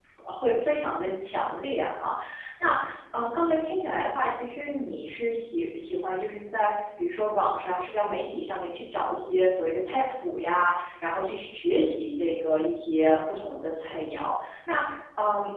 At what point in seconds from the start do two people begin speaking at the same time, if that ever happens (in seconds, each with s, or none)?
none